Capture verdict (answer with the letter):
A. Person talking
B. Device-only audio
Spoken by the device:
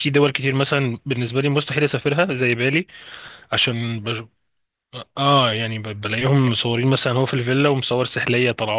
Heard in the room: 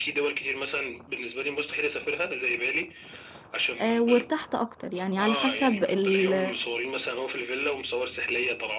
A